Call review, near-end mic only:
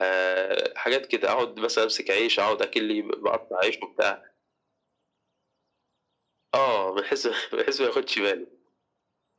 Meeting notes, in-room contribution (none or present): none